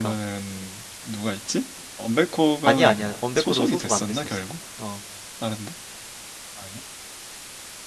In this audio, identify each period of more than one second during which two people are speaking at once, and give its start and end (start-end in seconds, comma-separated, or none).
2.7-4.3